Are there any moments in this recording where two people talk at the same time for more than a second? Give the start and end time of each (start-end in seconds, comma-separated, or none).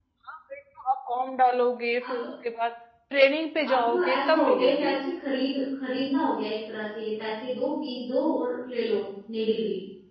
3.7-4.9